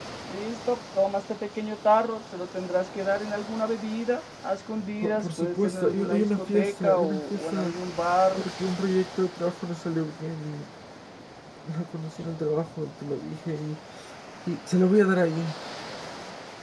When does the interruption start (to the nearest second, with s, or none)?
5 s